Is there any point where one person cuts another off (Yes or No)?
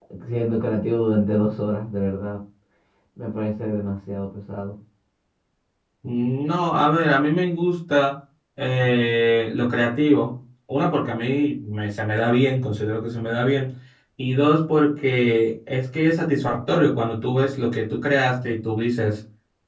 No